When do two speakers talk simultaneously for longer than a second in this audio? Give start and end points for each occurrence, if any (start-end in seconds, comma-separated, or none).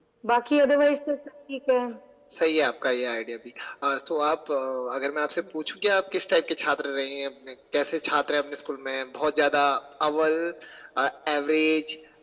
none